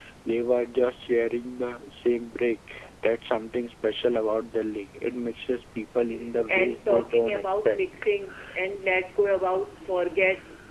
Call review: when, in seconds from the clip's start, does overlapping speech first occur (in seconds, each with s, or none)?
6.5 s